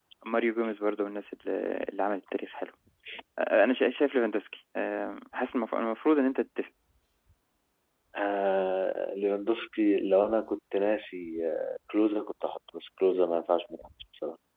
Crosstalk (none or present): none